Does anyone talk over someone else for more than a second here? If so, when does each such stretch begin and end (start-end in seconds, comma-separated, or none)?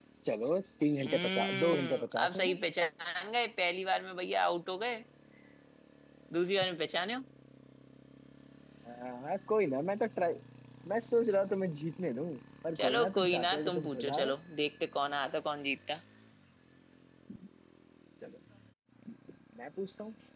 1.0-2.6, 12.8-14.3